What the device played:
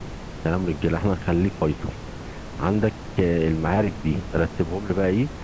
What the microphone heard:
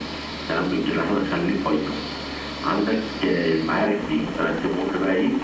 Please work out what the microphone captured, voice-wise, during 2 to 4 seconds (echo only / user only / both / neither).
echo only